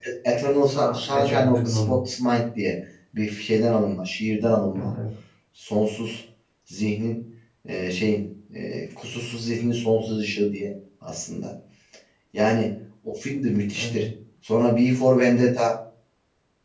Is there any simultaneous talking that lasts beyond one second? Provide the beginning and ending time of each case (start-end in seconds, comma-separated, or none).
0.7-2.0